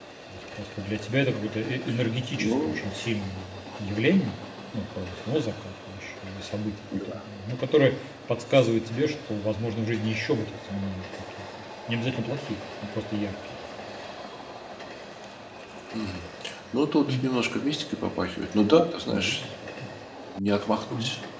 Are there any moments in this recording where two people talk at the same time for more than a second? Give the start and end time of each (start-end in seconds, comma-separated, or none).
none